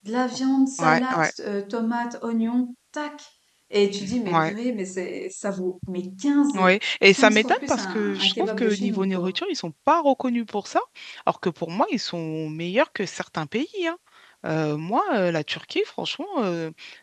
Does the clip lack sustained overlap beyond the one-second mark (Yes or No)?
No